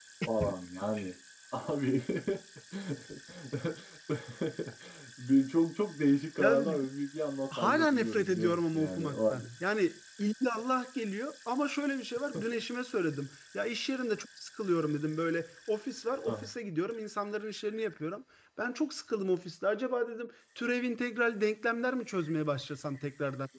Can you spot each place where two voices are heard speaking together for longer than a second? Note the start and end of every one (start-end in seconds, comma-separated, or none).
7.6-9.5